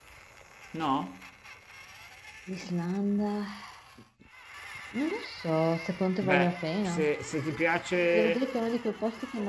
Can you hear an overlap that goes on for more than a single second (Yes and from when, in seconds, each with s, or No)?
No